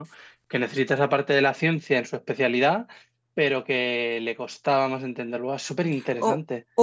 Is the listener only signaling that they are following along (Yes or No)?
No